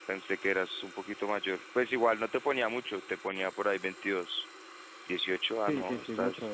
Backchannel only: No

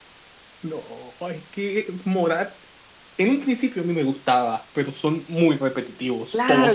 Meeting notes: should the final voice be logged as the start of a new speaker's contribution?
Yes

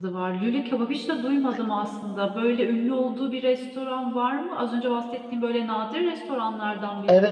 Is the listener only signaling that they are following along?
No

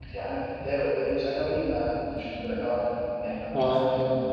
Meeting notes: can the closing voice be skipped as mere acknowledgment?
Yes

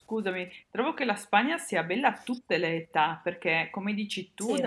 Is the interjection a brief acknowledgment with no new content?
Yes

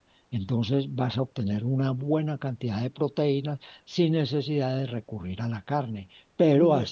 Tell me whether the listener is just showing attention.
Yes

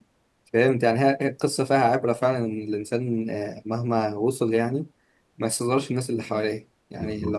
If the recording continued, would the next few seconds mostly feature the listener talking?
No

